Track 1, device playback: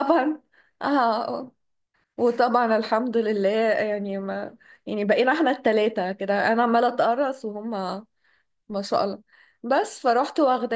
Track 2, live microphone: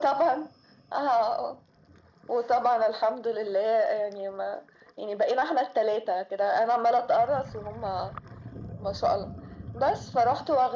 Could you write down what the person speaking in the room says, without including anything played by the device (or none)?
none